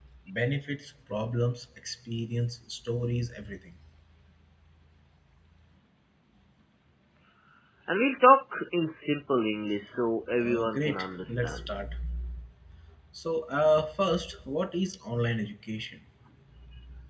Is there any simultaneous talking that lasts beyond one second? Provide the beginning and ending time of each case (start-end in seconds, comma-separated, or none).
10.4-11.6